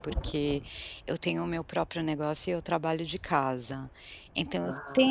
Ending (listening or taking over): listening